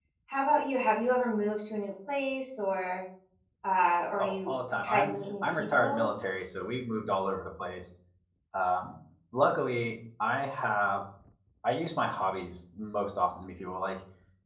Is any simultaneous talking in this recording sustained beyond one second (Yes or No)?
Yes